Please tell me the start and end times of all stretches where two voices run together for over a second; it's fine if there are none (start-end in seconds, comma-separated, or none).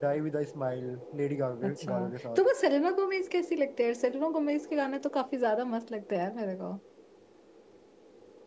none